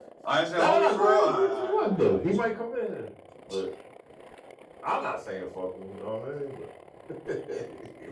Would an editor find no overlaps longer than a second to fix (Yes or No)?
No